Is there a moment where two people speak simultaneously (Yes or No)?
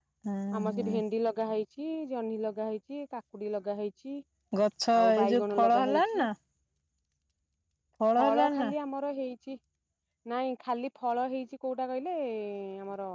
Yes